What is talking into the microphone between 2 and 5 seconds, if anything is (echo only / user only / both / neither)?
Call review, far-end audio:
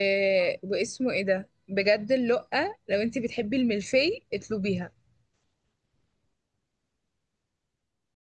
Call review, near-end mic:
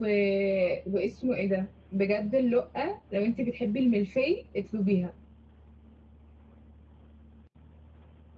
echo only